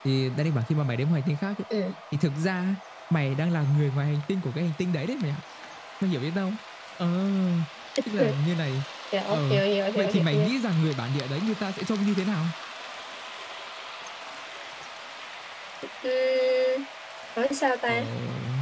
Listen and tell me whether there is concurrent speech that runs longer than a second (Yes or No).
No